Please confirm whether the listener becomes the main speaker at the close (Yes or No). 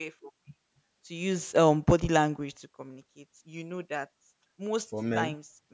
No